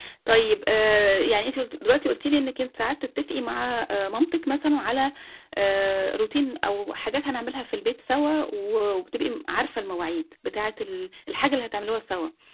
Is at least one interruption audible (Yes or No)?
No